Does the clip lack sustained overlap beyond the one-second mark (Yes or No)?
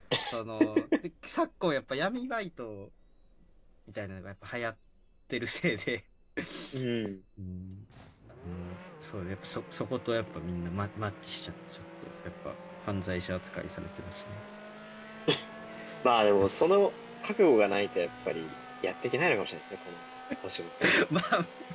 Yes